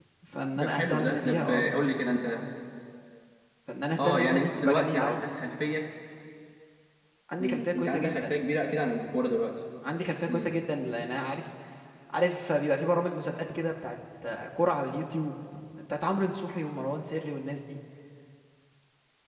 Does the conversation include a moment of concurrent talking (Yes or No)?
Yes